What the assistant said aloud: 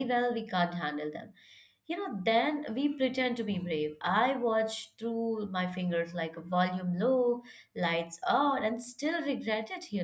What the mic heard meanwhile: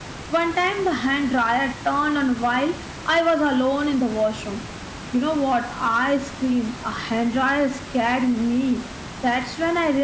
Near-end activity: present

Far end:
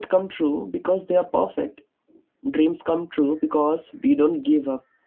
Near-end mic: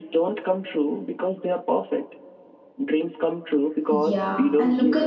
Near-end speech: present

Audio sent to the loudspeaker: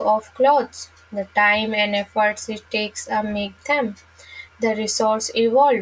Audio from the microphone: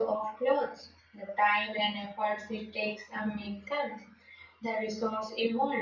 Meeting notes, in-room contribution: none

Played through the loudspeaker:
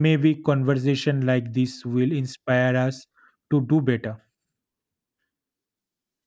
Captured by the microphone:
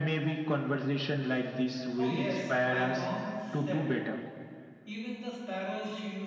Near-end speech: present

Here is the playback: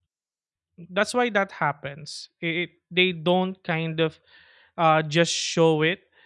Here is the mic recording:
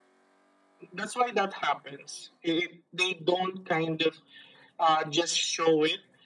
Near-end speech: none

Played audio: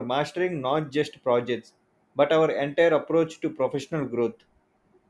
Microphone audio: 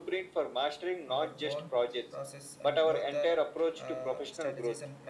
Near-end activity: present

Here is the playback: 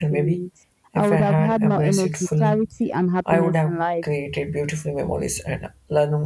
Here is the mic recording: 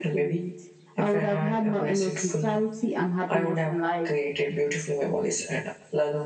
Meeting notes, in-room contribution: none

